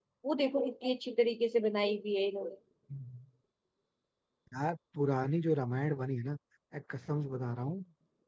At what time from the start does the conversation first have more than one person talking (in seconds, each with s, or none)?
none